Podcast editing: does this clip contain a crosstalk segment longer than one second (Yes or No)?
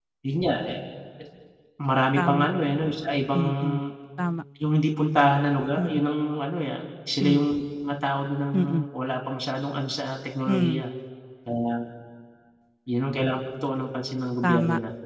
No